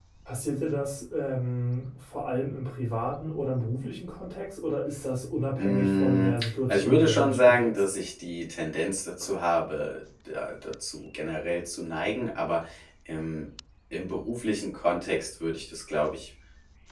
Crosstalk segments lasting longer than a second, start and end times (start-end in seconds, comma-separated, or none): 5.6-7.8